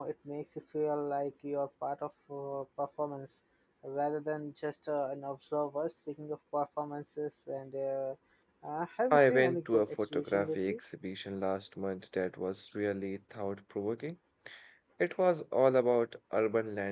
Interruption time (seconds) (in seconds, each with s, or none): 9.1 s